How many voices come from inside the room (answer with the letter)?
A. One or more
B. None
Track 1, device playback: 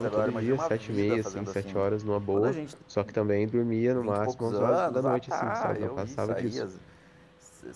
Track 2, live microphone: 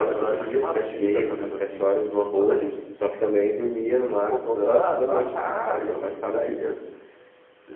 B